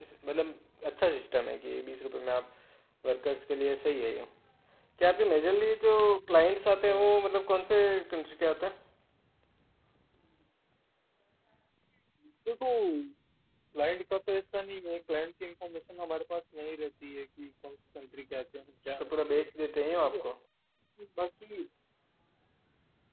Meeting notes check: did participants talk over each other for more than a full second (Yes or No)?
No